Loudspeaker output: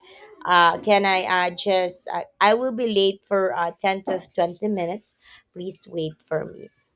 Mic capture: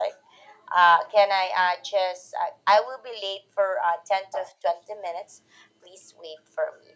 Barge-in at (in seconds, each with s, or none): none